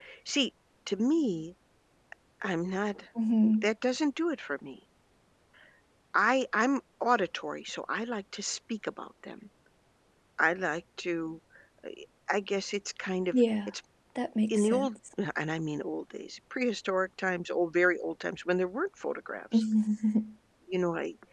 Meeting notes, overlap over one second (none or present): none